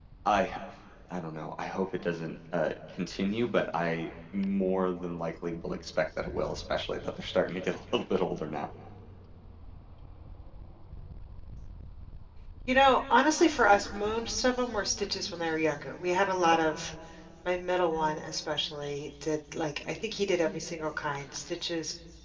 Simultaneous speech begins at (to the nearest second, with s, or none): none